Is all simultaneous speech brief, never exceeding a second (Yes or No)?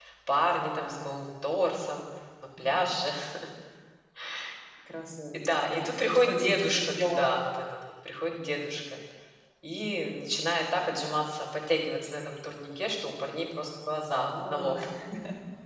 No